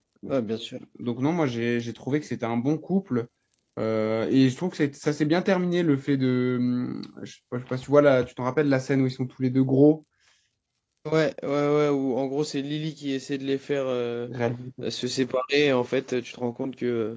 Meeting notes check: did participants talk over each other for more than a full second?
No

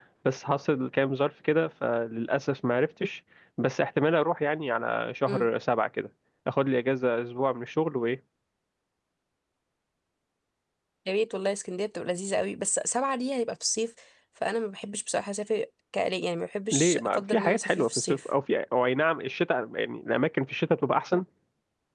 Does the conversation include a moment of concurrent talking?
Yes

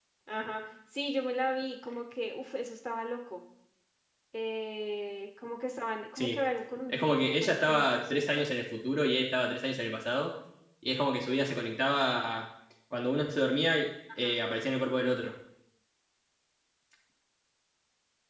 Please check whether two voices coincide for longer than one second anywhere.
Yes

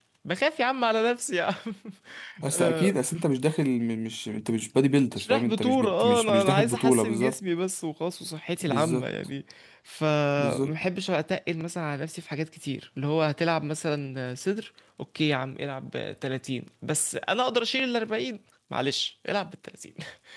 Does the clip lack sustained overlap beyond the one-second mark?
No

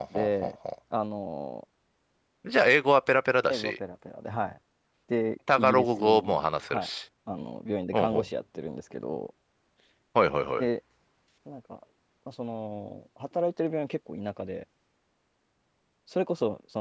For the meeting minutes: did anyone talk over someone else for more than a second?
Yes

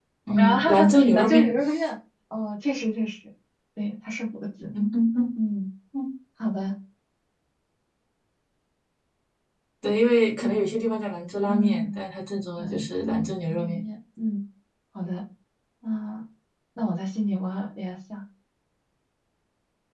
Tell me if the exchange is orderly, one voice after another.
No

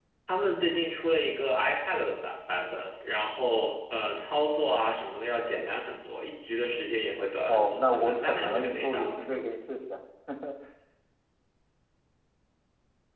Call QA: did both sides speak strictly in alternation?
No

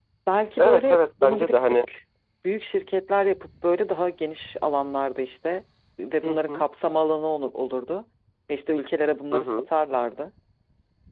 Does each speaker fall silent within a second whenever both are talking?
No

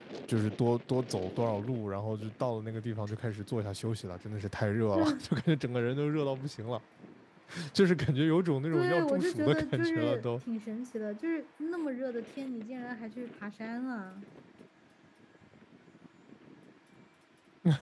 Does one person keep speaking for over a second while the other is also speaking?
Yes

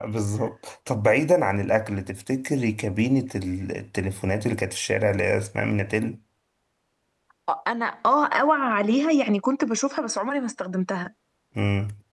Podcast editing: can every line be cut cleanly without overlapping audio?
Yes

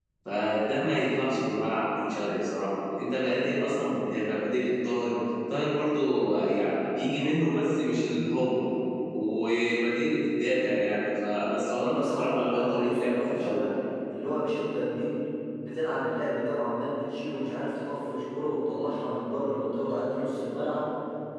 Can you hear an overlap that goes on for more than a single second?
Yes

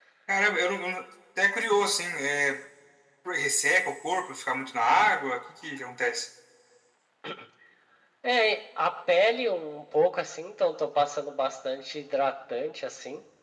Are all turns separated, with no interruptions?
Yes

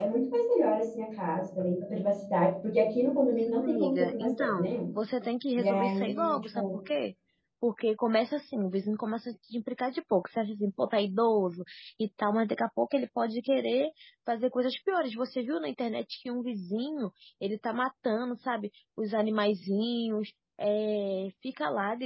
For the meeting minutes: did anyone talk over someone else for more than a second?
Yes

